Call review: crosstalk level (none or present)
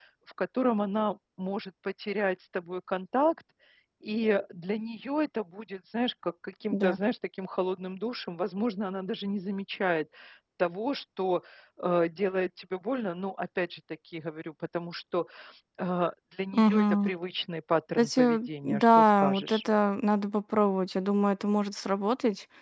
present